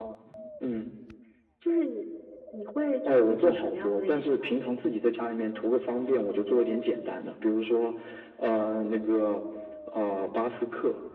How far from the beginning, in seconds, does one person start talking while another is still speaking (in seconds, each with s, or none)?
3.0 s